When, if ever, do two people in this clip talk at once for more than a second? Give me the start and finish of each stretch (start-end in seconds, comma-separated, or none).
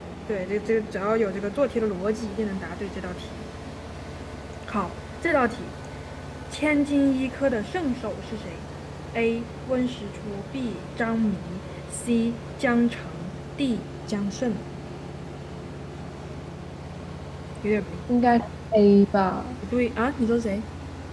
none